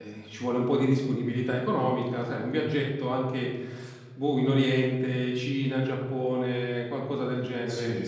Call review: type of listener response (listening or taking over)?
taking over